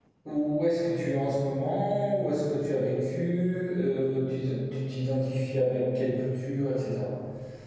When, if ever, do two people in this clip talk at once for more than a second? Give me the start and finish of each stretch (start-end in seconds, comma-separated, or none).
none